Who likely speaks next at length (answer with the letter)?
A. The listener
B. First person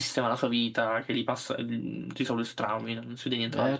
A